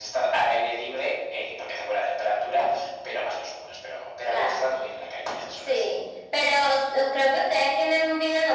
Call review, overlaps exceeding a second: none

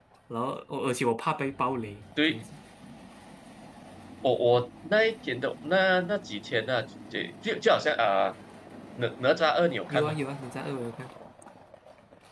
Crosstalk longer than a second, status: none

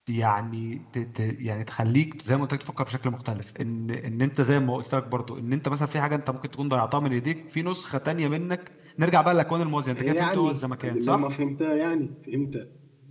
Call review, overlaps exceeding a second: present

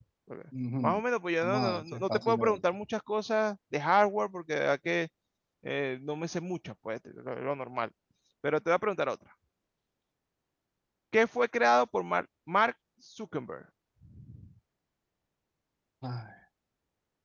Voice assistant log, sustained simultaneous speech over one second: present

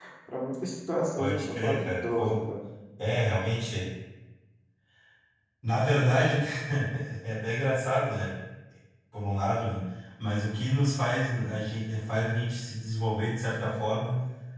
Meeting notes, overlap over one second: present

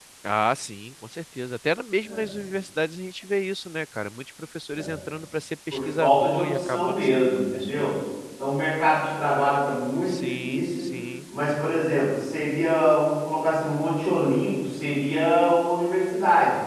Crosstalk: present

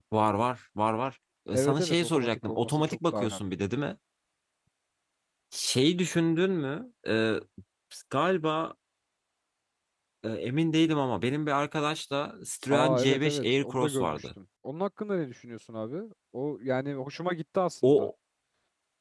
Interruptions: present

